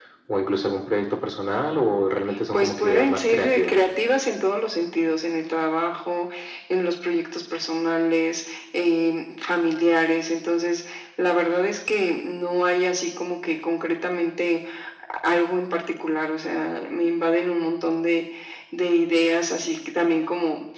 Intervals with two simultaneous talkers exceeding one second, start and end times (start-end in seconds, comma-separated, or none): 2.5-3.8